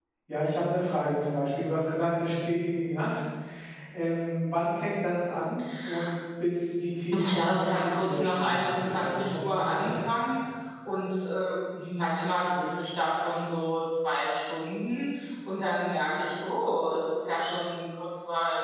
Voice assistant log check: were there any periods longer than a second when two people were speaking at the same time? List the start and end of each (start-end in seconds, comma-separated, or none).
7.3-10.0